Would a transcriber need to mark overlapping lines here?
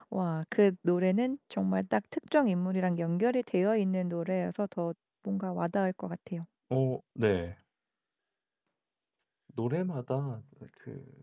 No

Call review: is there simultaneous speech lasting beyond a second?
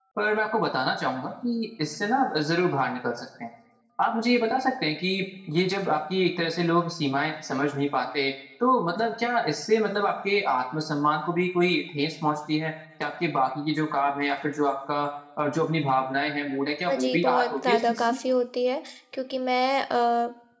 Yes, from 16.9 s

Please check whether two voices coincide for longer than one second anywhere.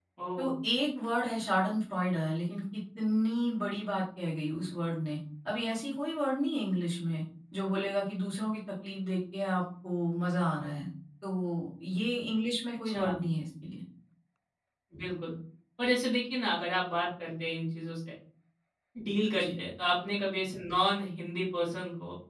No

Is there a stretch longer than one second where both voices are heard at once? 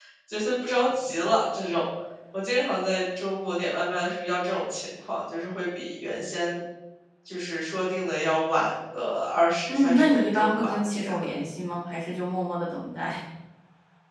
Yes, from 9.7 s

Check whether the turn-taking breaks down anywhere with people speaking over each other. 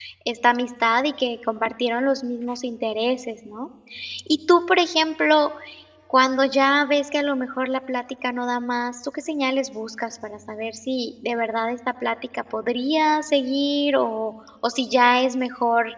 No

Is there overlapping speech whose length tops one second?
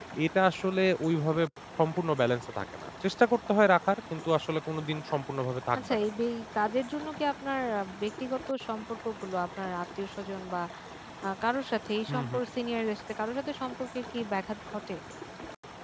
No

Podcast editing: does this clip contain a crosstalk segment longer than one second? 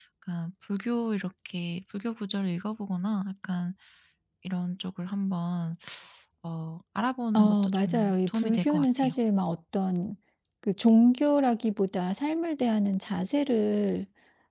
Yes, from 7.4 s

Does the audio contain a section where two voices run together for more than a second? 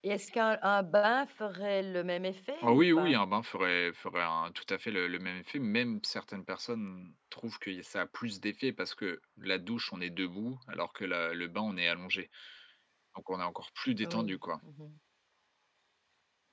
No

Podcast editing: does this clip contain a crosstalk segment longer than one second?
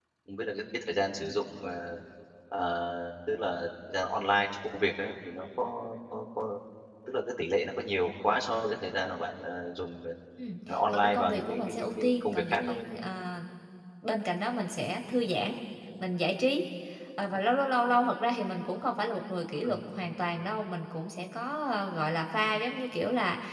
Yes, from 10.7 s

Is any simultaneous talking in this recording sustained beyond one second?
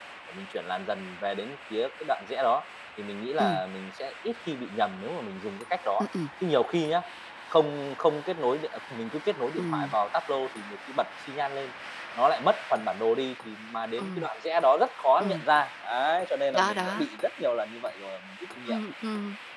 No

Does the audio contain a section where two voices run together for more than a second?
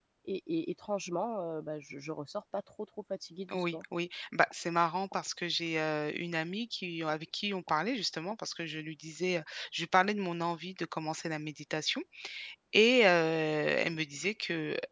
No

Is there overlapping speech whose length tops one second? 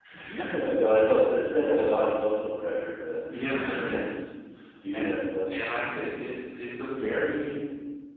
No

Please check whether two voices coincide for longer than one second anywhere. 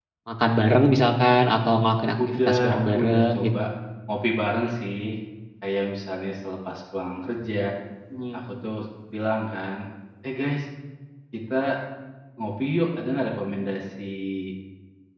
Yes, from 2.2 s

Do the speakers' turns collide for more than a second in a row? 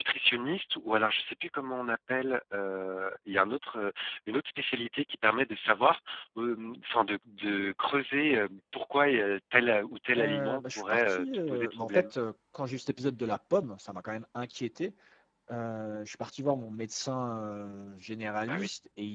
Yes, from 10.2 s

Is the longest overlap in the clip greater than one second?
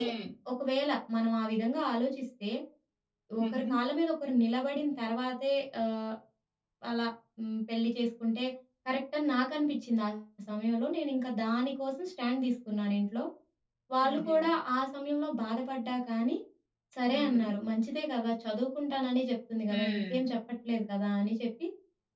No

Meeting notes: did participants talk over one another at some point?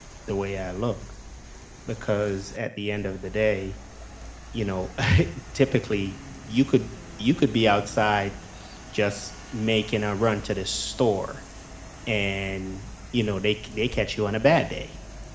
No

